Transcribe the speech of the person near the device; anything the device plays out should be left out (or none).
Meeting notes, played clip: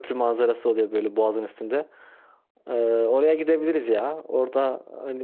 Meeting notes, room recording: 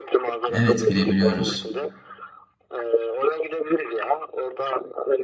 Evet girebiliyoruz.